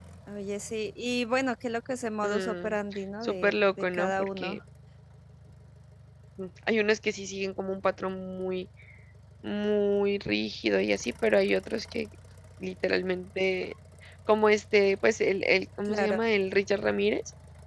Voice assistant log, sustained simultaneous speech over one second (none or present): present